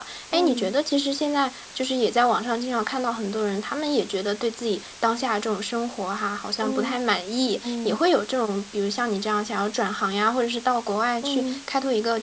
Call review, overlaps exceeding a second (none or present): none